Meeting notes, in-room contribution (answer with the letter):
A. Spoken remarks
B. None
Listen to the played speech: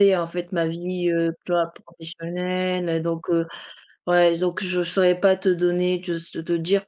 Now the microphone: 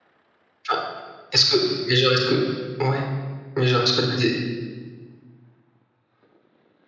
A